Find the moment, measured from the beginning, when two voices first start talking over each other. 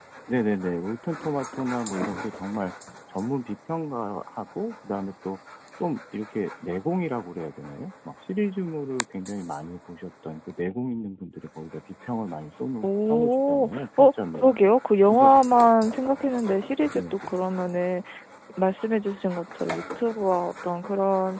12.8 s

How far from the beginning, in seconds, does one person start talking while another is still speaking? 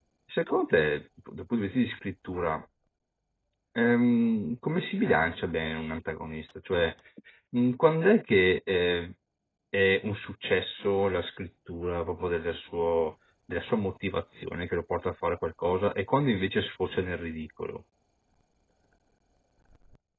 none

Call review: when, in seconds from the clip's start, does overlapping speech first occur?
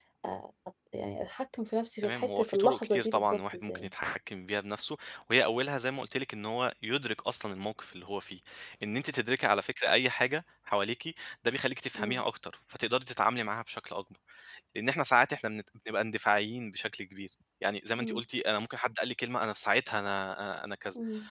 2.0 s

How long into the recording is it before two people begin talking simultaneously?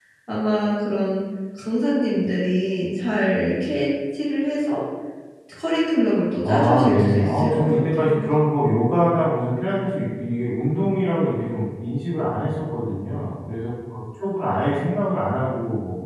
6.4 s

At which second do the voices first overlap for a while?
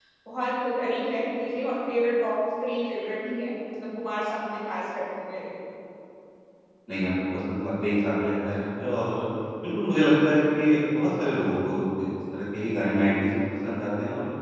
none

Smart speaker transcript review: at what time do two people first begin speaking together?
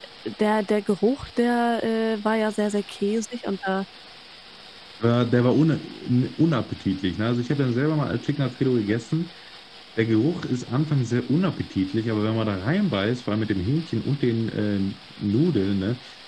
none

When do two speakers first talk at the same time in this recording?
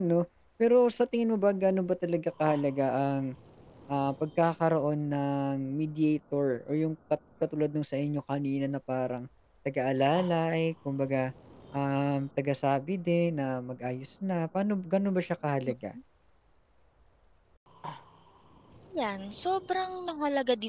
none

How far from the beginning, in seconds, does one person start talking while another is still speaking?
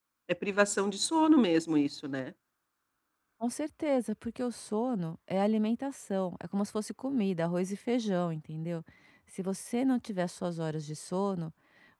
none

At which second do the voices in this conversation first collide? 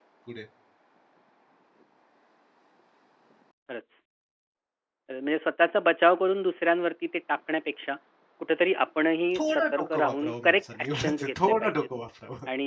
9.3 s

